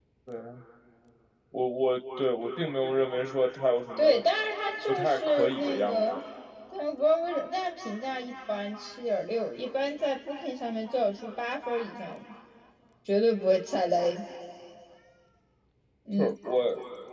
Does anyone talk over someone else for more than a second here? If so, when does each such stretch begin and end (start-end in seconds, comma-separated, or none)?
4.9-6.2